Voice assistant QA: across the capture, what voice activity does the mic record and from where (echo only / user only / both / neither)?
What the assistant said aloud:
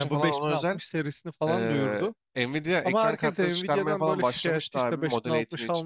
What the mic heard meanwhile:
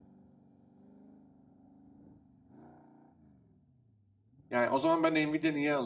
user only